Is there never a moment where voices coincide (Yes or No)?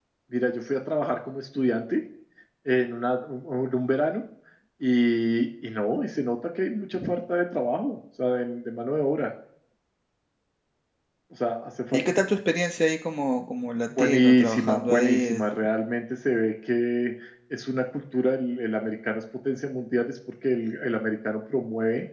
No